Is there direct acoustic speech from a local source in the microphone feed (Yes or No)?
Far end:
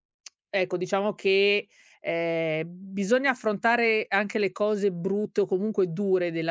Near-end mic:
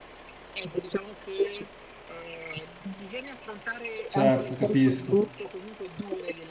Yes